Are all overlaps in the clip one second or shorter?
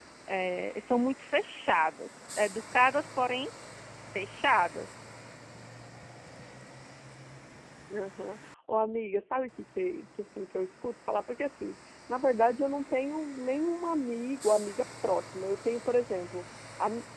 Yes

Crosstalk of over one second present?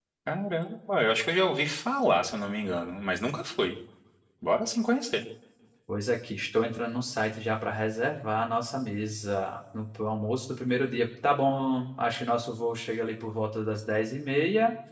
No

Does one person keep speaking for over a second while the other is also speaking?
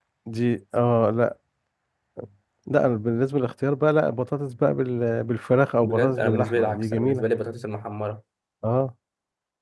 Yes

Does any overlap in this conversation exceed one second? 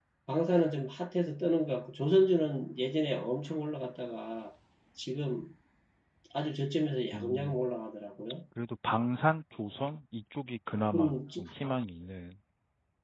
No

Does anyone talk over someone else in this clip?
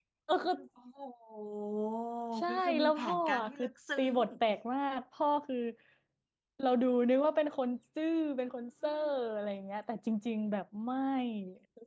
Yes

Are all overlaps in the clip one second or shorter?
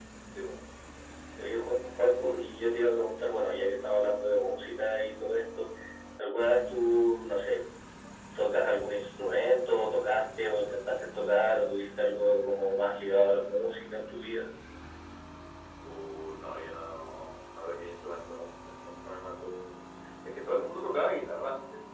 Yes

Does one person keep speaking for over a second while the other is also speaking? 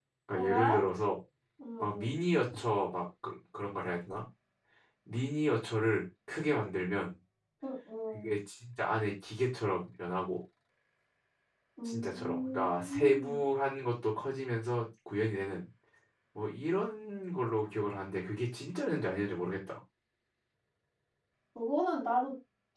Yes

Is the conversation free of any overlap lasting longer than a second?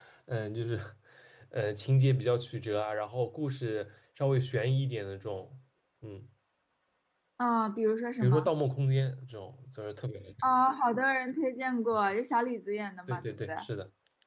Yes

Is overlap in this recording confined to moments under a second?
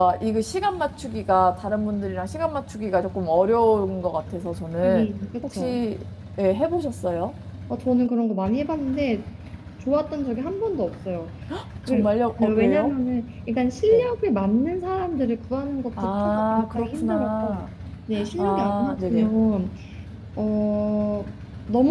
No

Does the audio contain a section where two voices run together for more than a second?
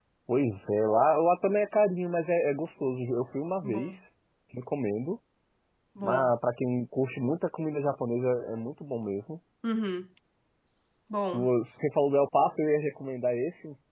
No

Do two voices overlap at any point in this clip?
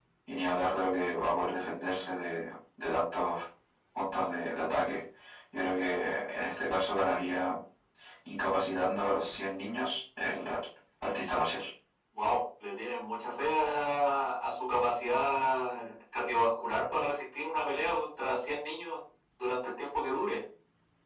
No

